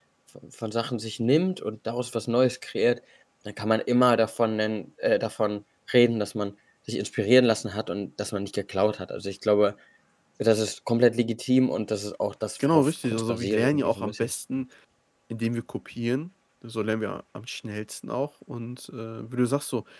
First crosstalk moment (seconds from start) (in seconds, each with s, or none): 12.6 s